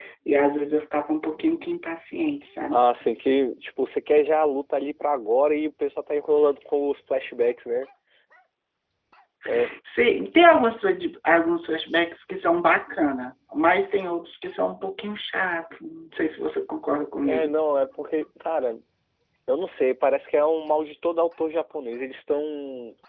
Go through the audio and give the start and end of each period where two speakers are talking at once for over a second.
none

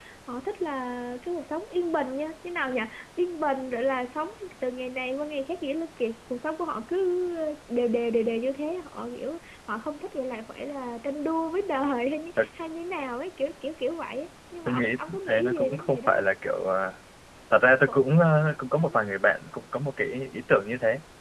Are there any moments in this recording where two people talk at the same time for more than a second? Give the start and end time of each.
14.7-16.2

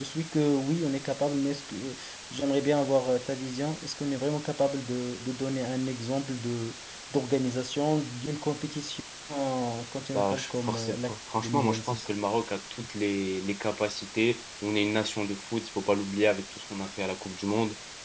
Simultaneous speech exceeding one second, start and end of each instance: 10.1-12.1

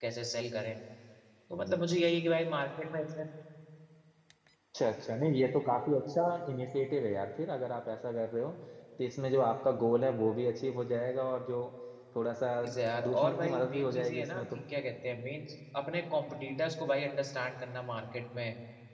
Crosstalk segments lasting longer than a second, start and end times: 13.0-14.5

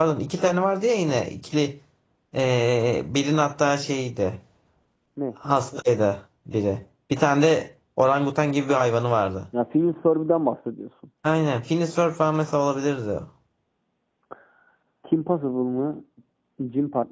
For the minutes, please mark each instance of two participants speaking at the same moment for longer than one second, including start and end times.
none

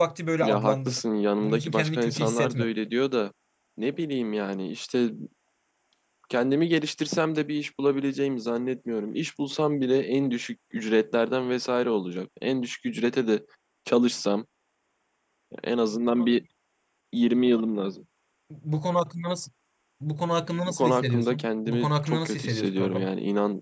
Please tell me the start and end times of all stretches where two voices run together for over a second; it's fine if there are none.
1.4-2.7, 20.7-23.1

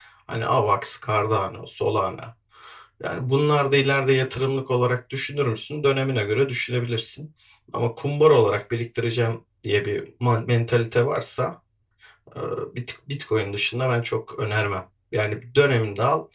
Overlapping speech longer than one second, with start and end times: none

